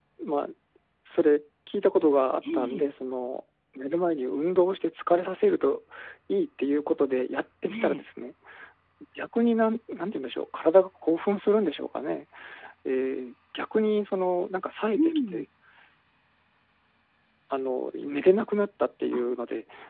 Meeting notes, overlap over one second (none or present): none